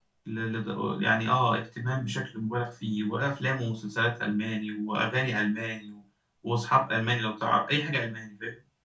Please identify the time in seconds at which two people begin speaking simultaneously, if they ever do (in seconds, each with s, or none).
none